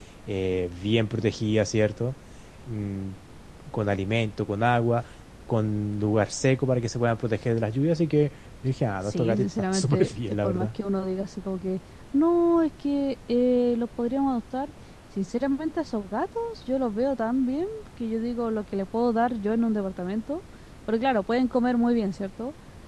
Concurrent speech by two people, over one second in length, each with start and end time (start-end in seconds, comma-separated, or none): 9.0-10.7